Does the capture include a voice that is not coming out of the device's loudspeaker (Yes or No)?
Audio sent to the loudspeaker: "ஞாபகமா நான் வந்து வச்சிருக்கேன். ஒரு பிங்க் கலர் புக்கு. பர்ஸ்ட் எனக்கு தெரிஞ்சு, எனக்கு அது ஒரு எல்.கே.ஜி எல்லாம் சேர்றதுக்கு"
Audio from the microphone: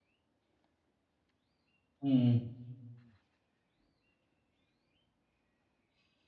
Yes